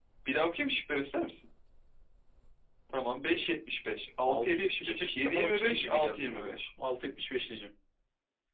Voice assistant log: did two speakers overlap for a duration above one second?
Yes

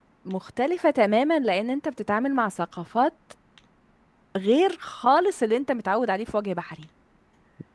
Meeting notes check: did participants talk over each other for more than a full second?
No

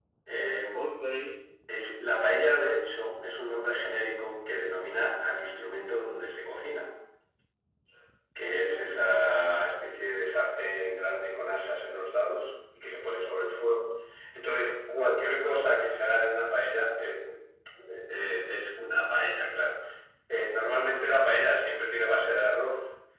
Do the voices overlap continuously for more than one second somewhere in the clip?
Yes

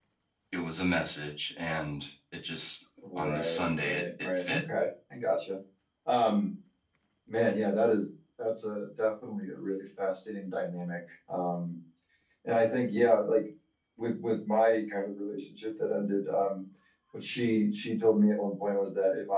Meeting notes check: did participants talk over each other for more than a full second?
Yes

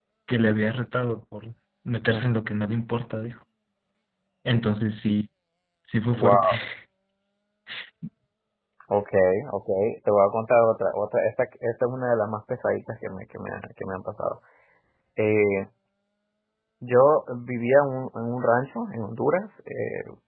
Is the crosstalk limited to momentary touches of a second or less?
Yes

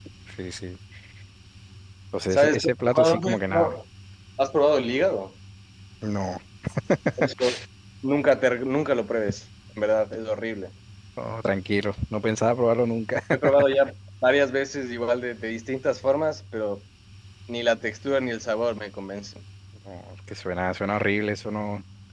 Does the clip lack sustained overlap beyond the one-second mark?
No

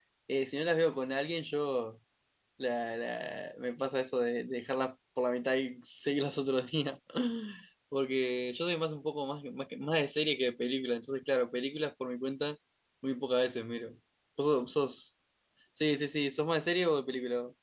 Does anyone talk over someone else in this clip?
No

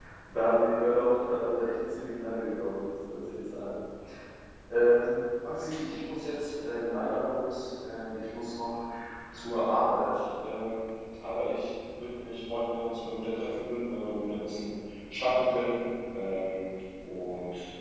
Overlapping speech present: No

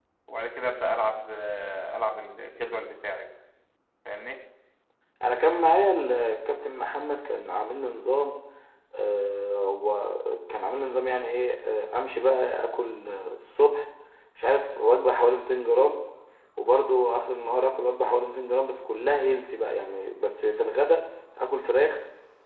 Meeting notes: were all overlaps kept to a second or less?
Yes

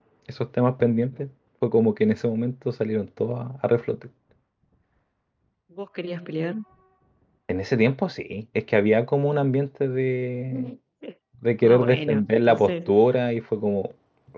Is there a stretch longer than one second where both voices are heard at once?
Yes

